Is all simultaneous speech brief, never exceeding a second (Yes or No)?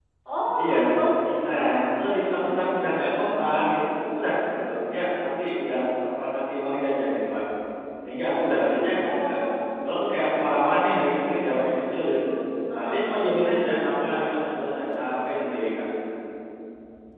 Yes